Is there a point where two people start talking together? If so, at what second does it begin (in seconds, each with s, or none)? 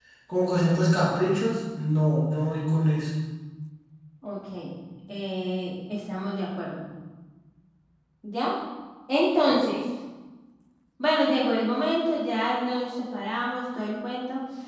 none